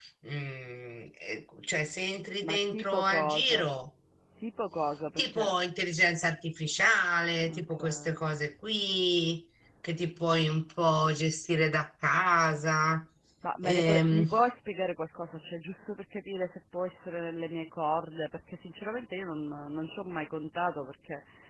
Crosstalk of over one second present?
Yes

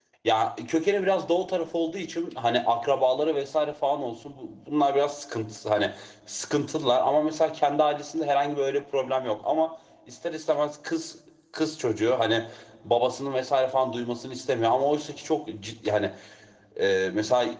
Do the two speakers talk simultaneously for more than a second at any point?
No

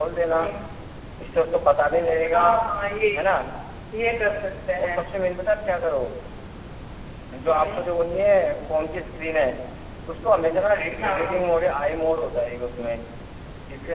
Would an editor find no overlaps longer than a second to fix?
Yes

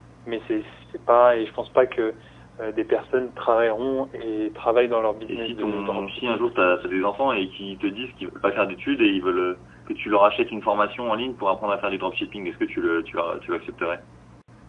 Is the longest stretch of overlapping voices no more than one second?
No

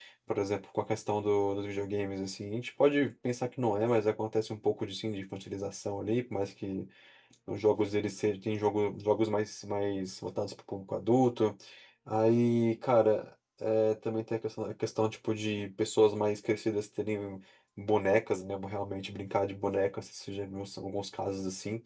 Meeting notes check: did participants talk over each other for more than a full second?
No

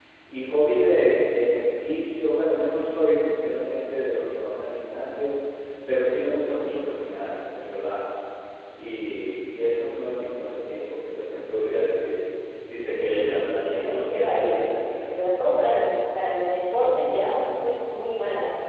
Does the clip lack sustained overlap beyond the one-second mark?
No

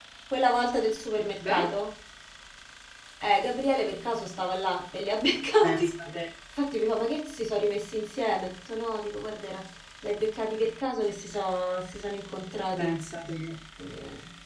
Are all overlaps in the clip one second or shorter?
Yes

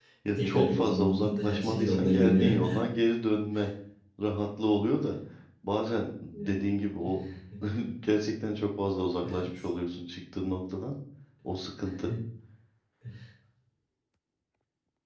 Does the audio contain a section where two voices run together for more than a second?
Yes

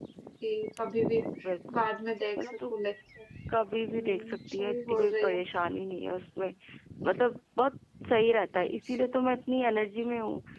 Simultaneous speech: Yes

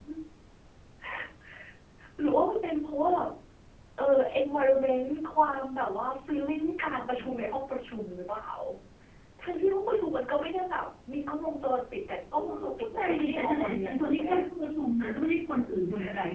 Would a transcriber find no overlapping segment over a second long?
No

